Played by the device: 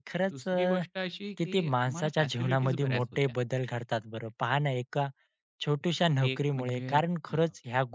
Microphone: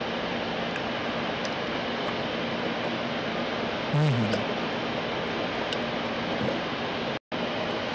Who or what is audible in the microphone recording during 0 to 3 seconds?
neither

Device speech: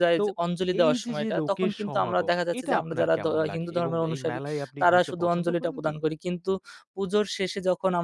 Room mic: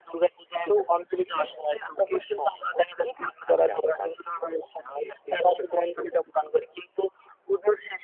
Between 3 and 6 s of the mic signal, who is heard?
echo only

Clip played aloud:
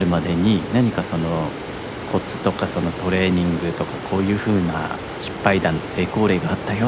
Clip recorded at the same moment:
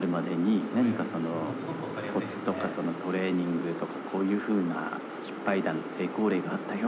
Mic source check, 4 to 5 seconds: echo only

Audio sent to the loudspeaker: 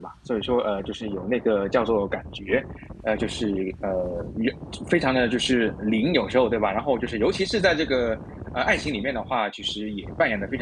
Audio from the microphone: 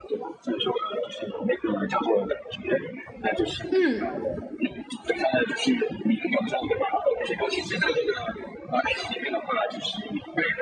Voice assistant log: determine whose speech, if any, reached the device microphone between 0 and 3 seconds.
echo only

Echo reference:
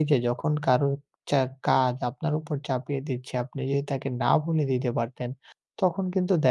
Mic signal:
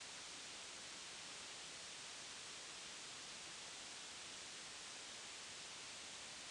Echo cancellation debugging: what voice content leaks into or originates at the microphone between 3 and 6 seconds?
neither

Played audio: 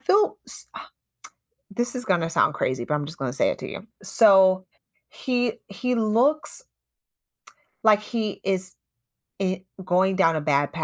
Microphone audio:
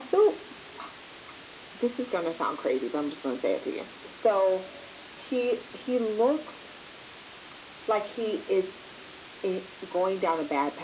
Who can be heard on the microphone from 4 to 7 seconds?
echo only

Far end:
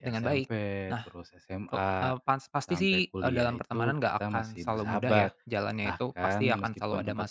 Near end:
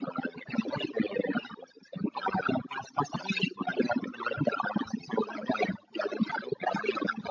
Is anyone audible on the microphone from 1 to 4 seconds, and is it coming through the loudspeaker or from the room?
echo only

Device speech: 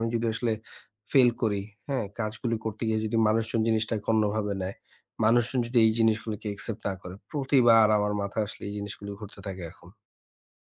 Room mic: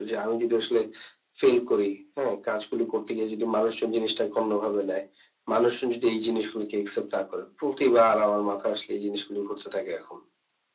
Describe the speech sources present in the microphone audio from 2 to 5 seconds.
echo only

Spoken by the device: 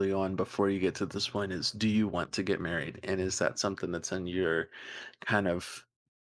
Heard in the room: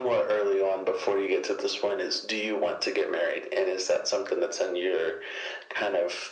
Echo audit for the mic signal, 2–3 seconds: echo only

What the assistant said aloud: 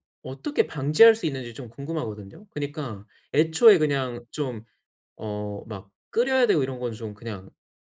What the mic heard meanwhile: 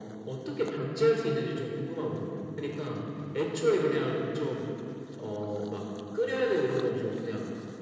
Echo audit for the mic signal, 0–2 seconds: echo only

